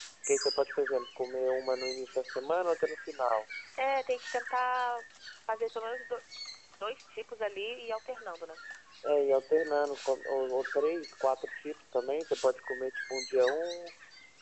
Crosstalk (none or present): none